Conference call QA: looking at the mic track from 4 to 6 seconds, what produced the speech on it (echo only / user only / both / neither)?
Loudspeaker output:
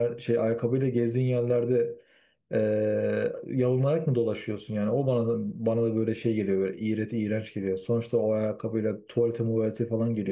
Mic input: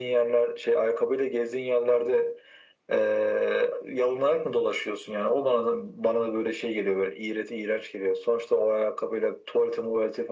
echo only